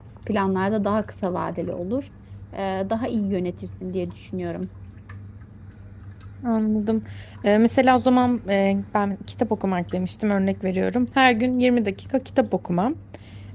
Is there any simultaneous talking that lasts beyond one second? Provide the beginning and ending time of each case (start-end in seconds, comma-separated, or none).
none